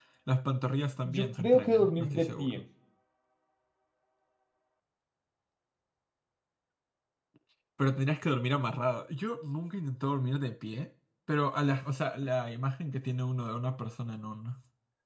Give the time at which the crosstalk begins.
1.0 s

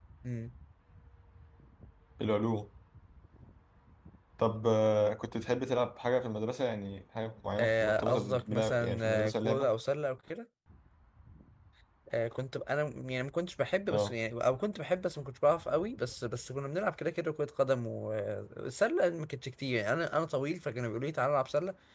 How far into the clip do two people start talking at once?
7.6 s

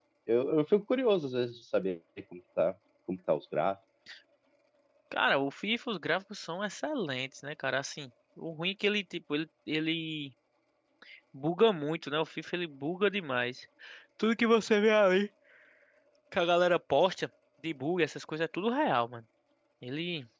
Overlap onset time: none

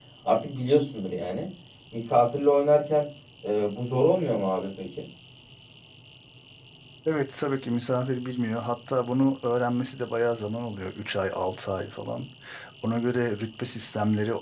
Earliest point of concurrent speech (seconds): none

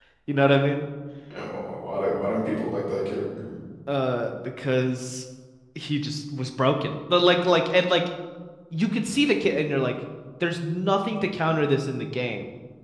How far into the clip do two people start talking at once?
none

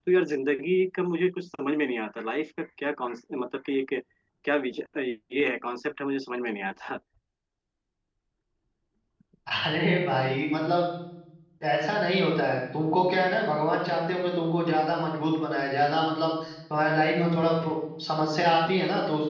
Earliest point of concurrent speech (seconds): none

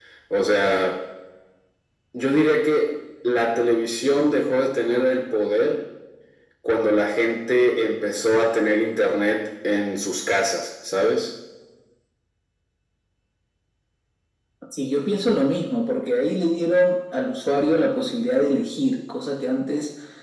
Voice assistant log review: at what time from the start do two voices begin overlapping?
none

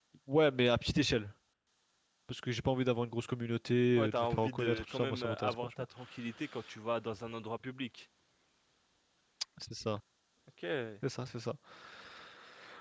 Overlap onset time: 4.0 s

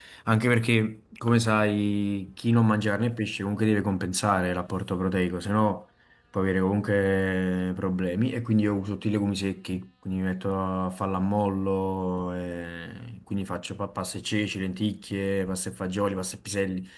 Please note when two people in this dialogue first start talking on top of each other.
none

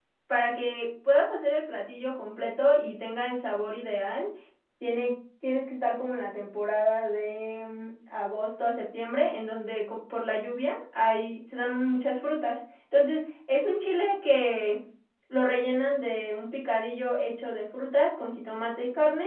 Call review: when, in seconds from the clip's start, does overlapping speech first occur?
none

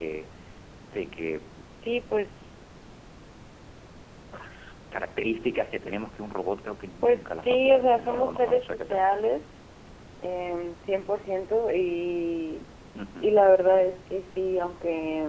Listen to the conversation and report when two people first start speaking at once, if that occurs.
7.0 s

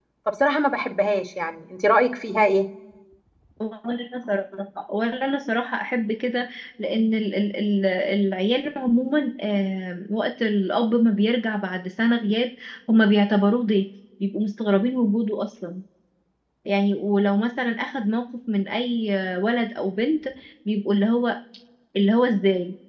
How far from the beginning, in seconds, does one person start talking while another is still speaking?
none

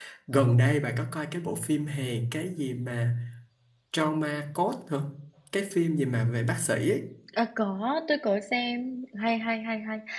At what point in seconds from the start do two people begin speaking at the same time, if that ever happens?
none

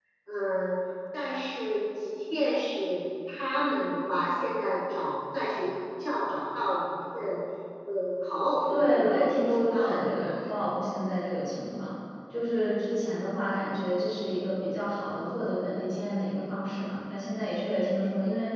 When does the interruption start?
8.7 s

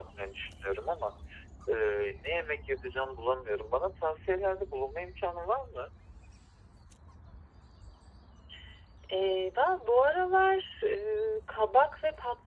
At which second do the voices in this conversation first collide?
none

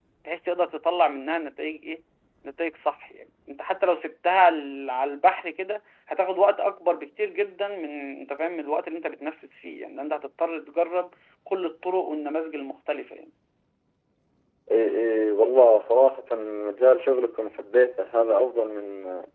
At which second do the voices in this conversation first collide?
none

